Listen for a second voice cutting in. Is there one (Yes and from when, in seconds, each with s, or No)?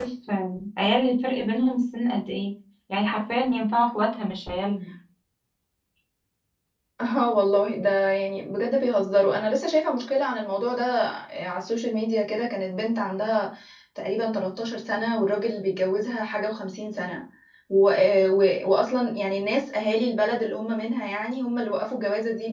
No